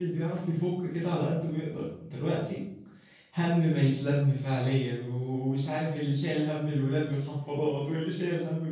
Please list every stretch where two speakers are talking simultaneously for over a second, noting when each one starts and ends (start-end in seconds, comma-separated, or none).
none